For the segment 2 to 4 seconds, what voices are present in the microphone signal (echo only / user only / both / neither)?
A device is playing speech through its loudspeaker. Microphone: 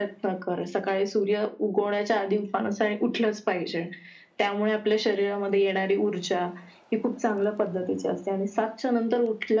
echo only